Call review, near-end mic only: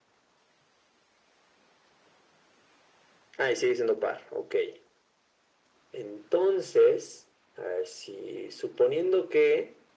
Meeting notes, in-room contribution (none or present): none